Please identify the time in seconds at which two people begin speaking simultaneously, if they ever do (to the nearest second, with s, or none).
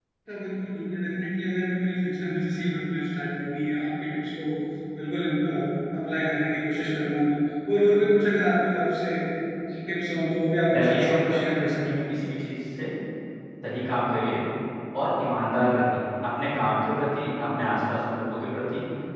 11 s